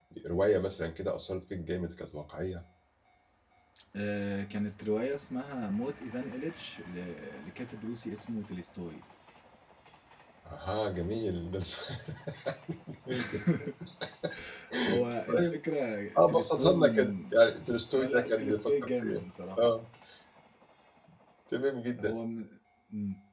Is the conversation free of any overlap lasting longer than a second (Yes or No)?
No